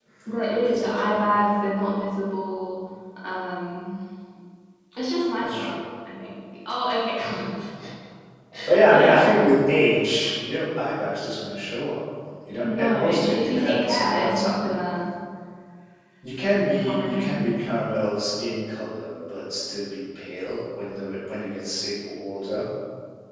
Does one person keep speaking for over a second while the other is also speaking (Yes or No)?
Yes